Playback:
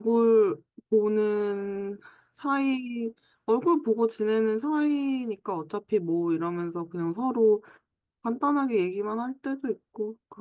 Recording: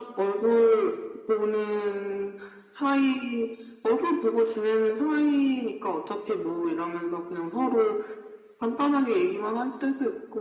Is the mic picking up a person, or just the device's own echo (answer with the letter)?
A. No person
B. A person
A